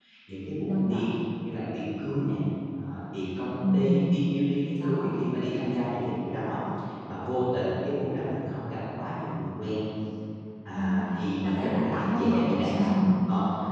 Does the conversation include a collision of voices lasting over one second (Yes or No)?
Yes